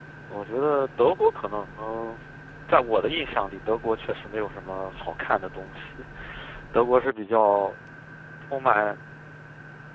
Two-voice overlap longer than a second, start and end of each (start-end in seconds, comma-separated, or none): none